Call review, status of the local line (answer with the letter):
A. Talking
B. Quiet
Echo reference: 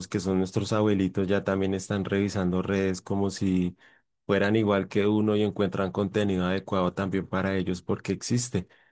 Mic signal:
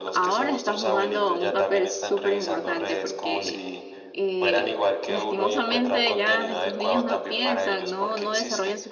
A